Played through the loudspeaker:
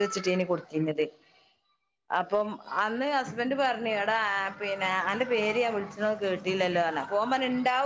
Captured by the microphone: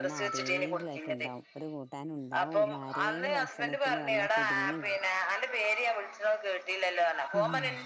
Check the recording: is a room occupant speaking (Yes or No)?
Yes